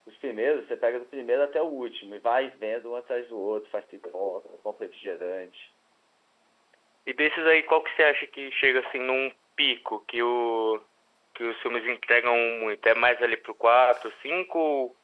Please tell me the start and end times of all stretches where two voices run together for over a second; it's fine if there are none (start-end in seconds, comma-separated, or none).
none